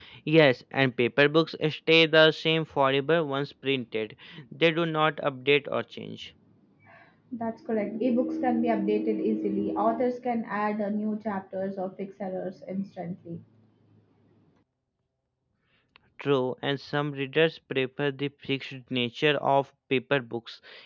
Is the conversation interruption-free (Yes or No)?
Yes